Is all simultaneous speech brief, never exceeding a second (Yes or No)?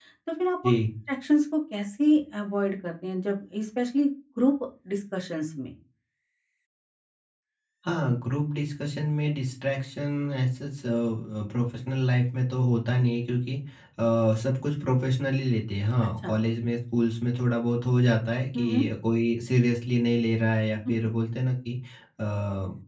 Yes